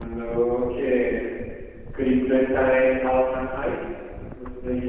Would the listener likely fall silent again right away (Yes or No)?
No